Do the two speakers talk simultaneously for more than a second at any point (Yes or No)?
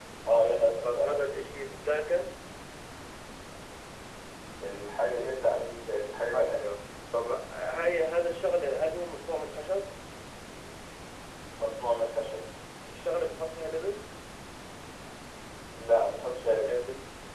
No